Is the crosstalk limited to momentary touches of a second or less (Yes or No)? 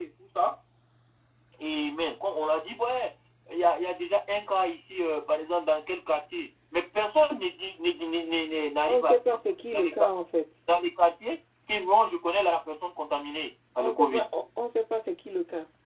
Yes